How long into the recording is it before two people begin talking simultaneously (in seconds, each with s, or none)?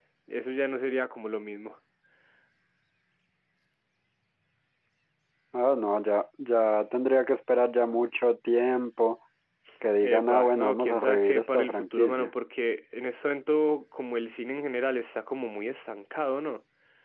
10.0 s